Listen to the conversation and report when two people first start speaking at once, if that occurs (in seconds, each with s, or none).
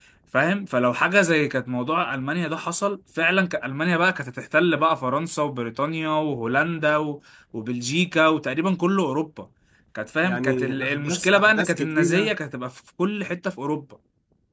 10.2 s